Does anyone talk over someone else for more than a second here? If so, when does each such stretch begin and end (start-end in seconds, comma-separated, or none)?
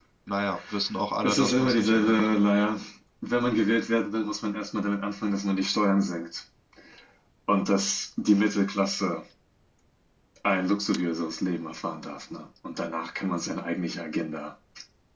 1.2-2.4